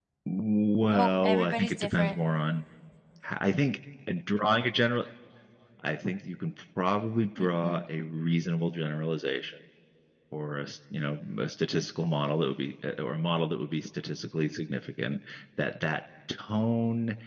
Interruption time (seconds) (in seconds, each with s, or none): 0.9 s